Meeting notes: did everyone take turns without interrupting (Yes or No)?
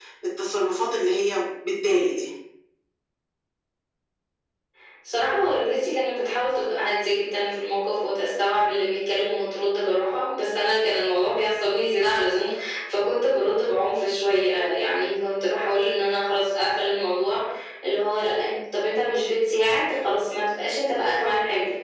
Yes